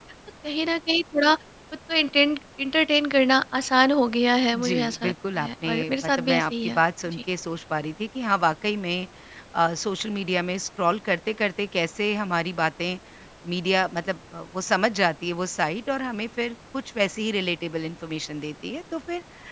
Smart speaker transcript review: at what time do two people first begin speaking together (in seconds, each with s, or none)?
4.5 s